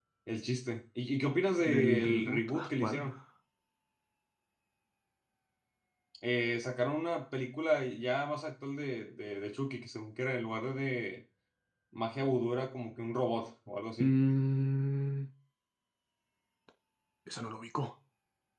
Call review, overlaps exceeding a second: present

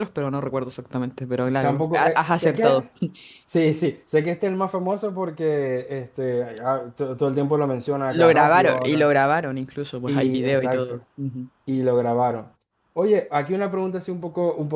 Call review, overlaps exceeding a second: present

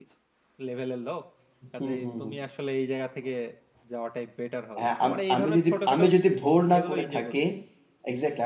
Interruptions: present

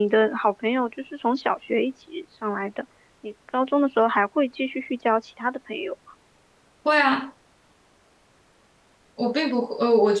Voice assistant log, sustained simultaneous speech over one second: none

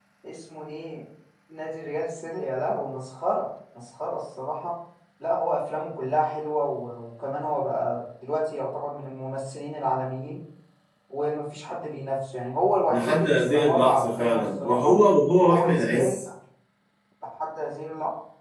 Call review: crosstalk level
present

